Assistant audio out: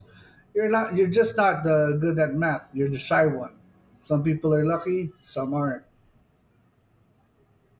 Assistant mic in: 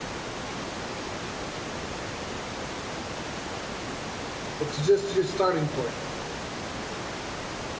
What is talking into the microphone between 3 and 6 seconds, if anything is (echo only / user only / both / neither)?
user only